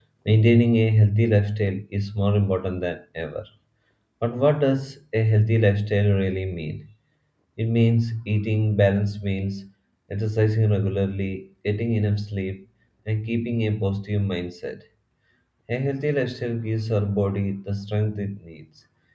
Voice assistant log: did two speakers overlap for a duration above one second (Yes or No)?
No